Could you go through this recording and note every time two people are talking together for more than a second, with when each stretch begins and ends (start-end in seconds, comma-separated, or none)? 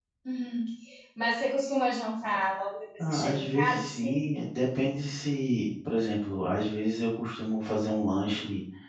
3.0-4.2